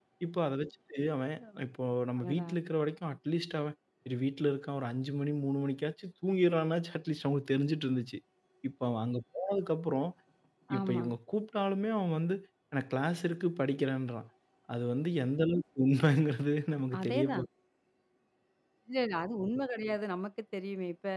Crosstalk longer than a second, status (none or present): none